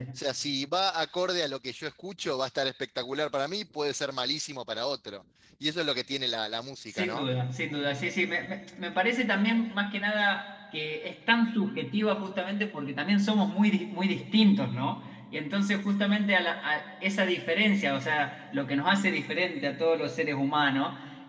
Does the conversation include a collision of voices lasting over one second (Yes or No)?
No